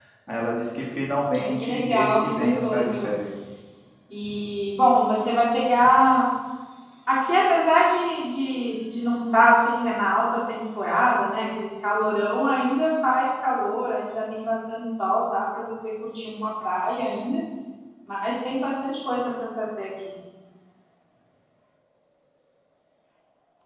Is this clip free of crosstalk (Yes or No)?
No